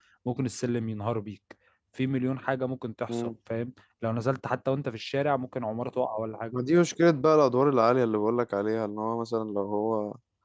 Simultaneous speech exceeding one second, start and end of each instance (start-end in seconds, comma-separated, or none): none